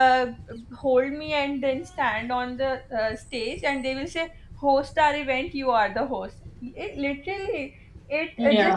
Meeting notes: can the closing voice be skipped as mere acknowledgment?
Yes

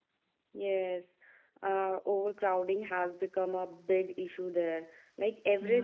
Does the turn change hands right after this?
No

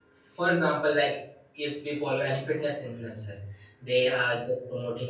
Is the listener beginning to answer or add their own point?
No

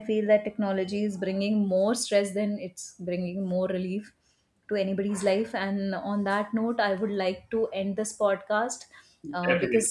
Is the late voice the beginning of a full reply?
No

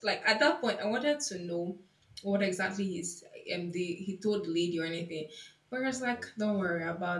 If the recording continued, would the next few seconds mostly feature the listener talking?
No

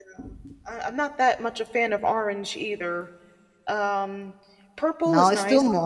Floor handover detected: Yes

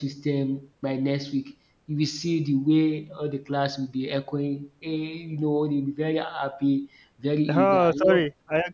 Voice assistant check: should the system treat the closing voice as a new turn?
Yes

